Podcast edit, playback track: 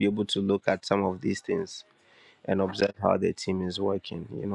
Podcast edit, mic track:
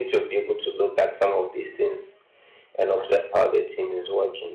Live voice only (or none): none